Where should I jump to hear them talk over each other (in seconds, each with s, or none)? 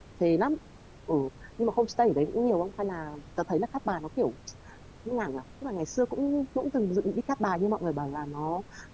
none